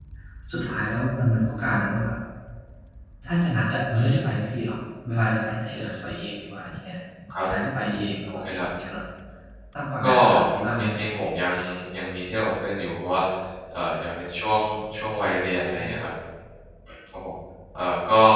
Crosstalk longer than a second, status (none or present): none